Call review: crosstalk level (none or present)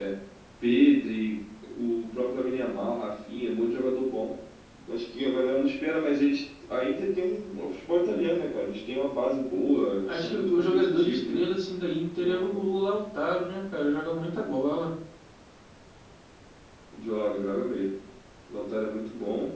present